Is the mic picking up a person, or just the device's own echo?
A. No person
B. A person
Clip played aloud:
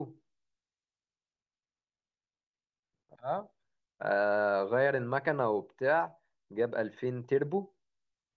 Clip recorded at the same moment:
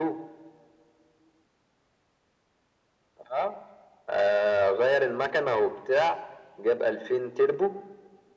A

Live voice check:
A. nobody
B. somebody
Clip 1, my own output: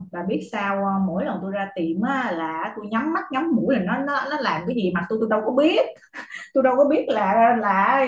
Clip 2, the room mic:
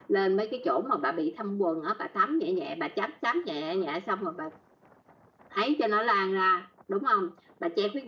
B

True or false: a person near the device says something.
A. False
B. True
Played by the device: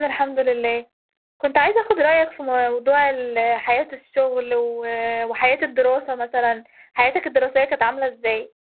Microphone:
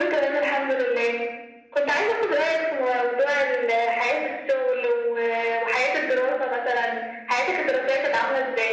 A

